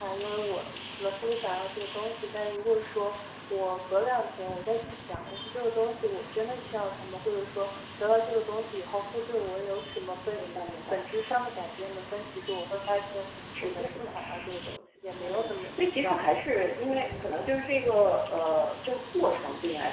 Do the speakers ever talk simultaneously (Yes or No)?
Yes